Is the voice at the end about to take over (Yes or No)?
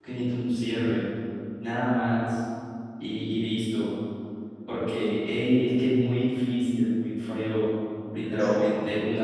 No